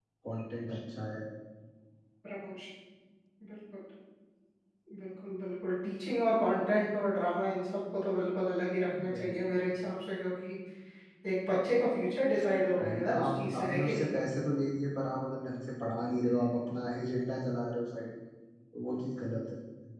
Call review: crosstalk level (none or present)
present